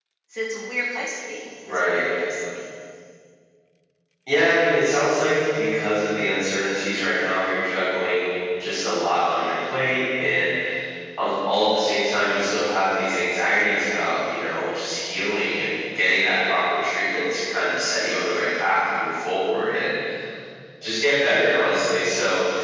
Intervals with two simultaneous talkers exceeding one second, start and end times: none

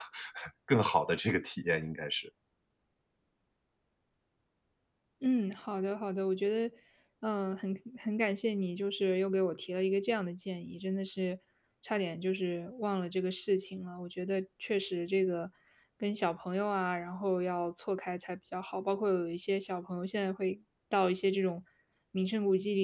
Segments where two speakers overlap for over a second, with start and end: none

